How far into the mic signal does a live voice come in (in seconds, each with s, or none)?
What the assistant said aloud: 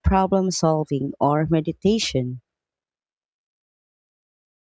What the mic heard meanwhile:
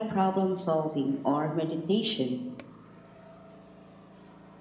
none